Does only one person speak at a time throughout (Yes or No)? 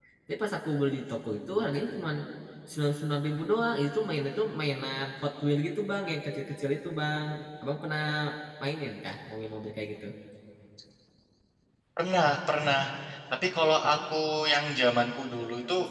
Yes